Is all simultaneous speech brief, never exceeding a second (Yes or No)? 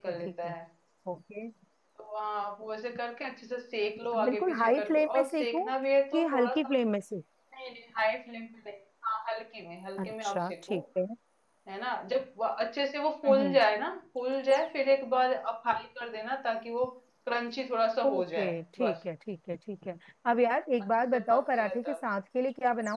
No